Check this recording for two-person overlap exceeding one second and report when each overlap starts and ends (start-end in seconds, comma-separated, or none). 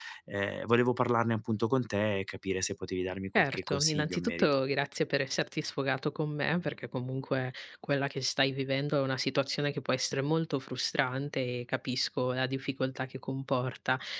3.4-4.6